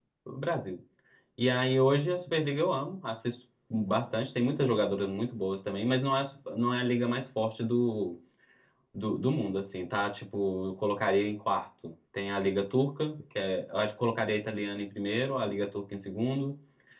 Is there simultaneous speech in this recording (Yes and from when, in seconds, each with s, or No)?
No